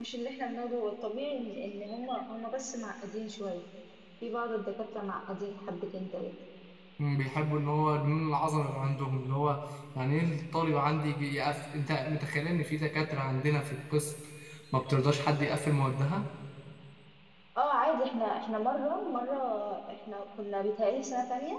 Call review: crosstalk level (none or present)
none